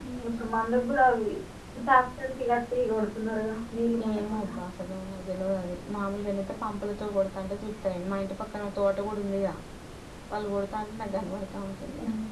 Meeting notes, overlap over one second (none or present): none